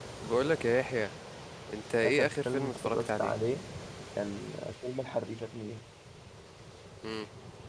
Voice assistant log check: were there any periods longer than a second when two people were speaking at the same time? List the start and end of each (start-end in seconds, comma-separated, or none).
2.0-3.3